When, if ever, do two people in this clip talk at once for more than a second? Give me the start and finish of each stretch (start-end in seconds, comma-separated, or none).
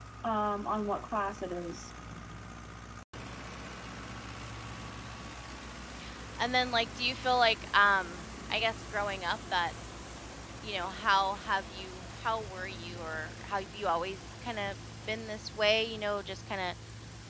none